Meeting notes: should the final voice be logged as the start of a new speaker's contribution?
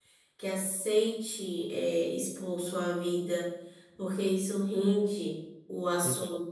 No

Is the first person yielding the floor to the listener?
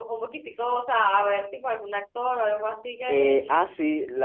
Yes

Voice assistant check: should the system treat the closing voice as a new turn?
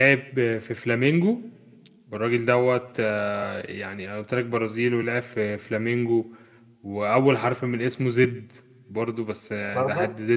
No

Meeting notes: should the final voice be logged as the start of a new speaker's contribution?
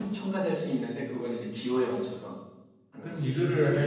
Yes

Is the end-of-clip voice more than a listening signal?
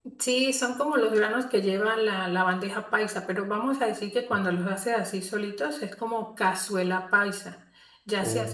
No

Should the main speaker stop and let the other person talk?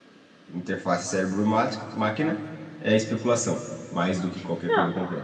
Yes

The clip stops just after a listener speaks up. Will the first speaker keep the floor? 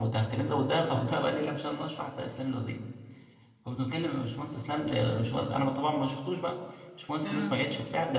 Yes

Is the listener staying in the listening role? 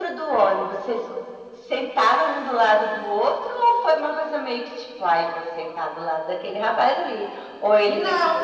No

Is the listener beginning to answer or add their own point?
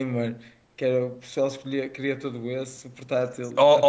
Yes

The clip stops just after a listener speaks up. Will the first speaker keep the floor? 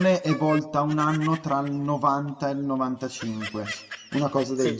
No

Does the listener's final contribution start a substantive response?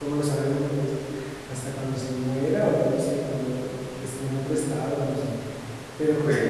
No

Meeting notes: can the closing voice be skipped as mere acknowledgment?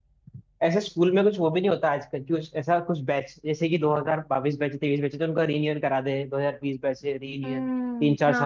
No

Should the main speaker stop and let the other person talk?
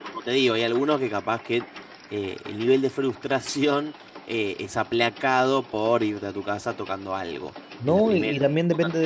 Yes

